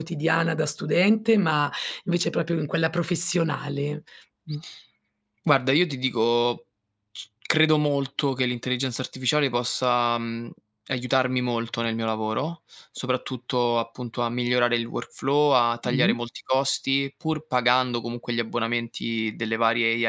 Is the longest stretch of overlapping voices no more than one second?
Yes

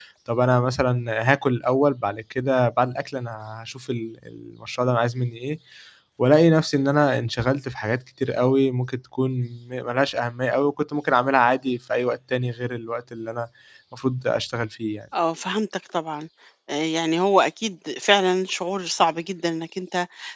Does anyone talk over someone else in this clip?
No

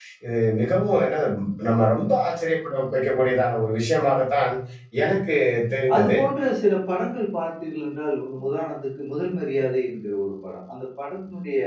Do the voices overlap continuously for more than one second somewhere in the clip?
No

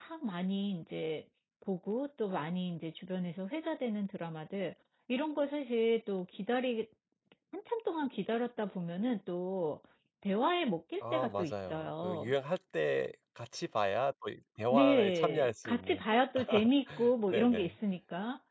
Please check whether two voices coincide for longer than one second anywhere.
Yes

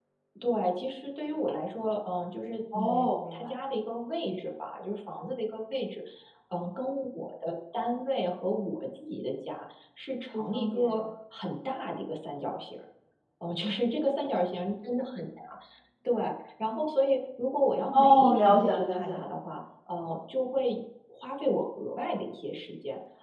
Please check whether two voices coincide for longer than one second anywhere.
Yes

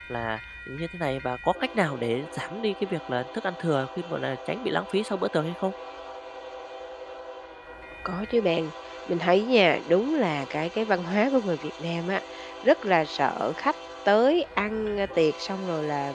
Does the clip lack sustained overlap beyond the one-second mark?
Yes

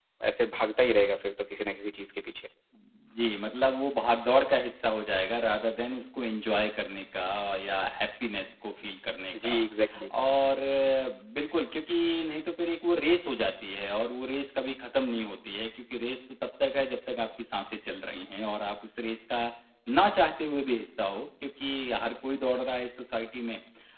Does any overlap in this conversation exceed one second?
No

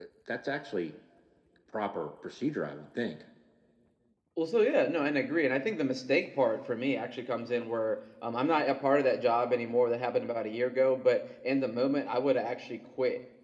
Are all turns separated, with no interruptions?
Yes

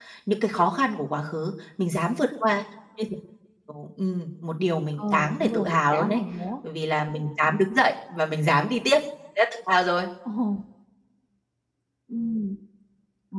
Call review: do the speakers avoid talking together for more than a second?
No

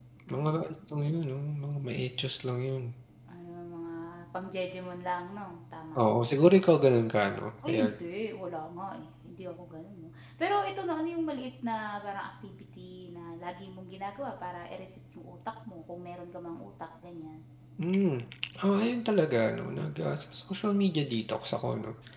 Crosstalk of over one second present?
No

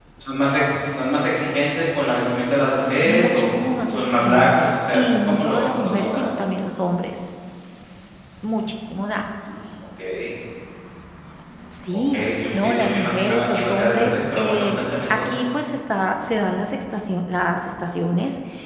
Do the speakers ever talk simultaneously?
Yes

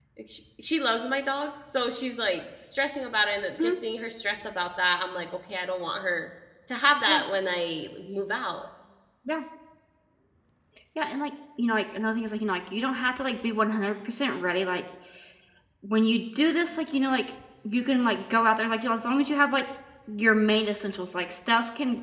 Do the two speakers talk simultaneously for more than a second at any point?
No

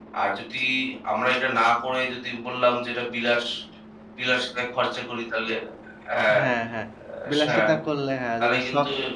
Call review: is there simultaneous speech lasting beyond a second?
No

